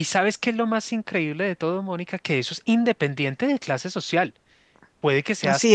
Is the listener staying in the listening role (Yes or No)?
Yes